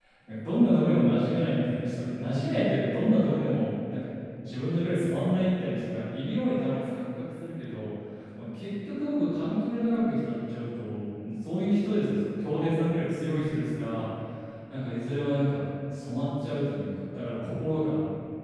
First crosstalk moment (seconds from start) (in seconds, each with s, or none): none